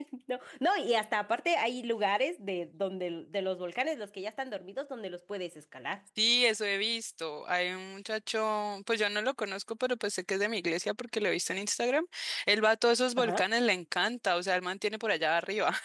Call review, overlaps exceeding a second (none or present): none